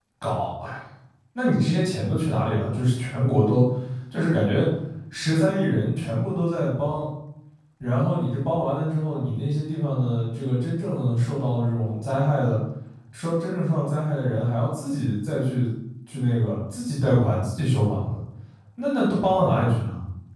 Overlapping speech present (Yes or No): No